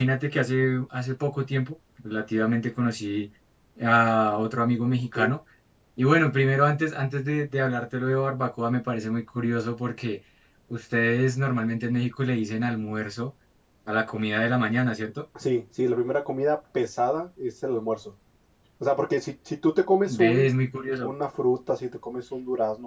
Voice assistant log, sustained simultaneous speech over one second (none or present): none